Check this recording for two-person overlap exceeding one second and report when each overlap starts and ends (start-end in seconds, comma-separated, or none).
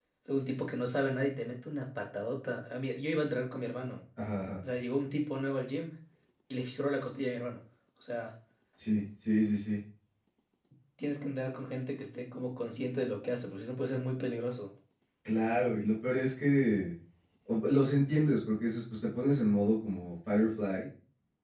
none